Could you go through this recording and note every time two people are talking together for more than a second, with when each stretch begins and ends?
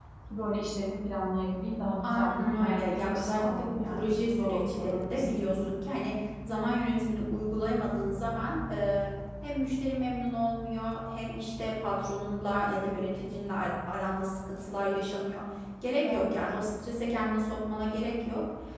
2.0-5.4

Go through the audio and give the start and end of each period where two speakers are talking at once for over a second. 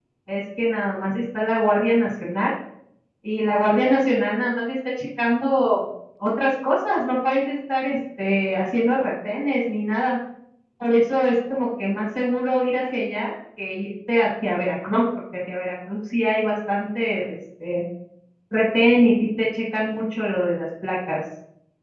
none

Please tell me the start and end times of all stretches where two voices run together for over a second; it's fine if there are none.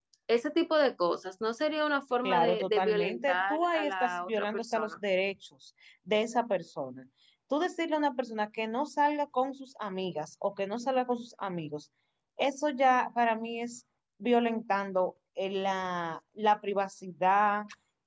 2.2-4.9

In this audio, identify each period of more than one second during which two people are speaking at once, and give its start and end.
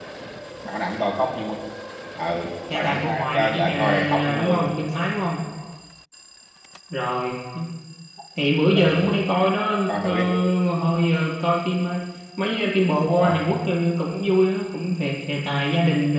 2.7-4.8

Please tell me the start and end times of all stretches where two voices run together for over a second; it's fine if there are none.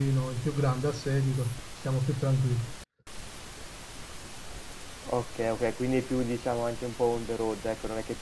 none

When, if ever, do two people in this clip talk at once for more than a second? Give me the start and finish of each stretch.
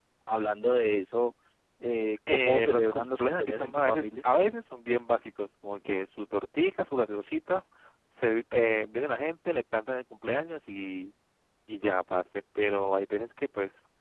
2.3-4.1

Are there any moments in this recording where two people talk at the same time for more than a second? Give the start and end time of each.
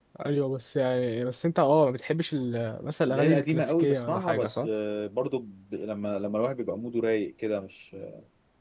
3.1-4.7

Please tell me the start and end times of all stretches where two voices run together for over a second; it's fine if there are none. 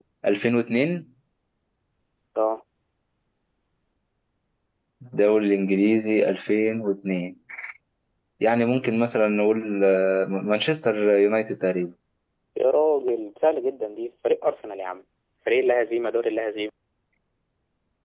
none

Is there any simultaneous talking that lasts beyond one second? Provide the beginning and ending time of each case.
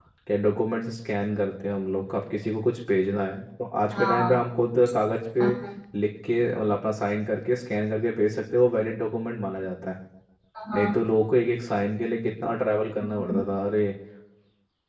none

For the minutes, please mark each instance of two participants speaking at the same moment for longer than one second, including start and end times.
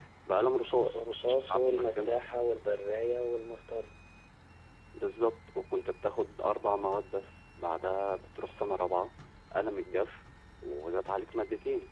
0.8-2.2

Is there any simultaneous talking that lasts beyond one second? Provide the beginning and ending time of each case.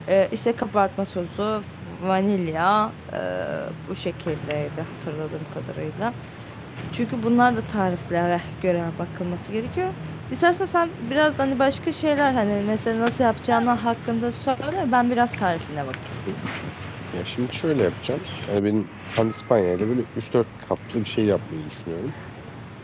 none

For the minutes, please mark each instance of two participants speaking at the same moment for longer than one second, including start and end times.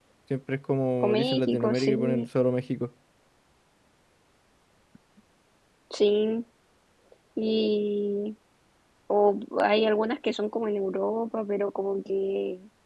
1.0-2.3

